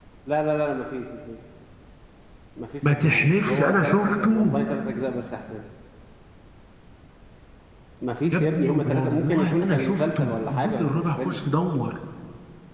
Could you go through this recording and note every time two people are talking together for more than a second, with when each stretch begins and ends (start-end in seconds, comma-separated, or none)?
2.9-4.6, 8.3-11.4